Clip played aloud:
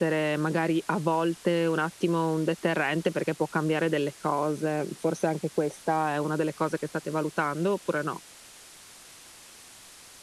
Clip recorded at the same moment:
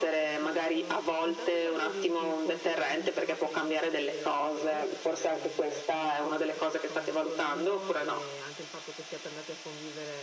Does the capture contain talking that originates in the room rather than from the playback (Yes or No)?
Yes